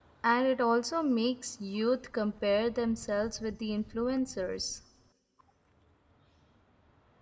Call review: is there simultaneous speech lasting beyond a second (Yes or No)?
No